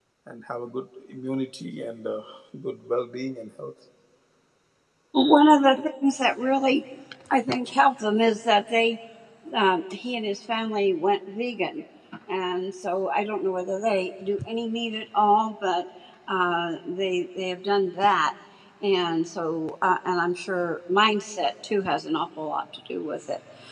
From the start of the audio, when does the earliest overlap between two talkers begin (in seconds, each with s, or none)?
none